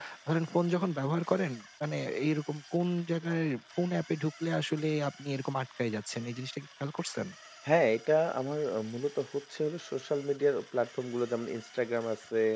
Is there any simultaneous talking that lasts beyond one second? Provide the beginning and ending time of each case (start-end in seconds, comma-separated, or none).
none